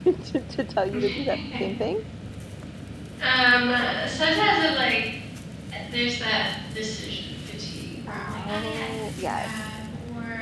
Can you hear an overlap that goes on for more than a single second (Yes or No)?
Yes